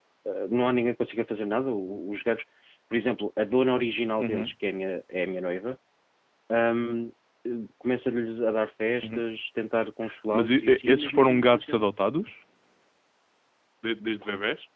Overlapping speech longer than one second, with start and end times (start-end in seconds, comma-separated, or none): 10.3-11.9